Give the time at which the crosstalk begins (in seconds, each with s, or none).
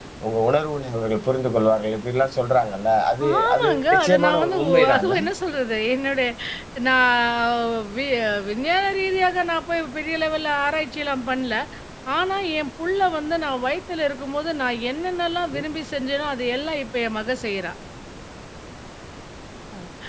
3.2 s